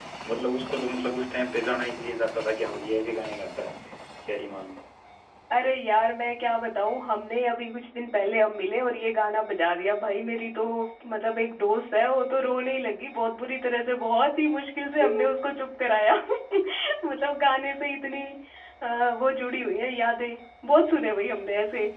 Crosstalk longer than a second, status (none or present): none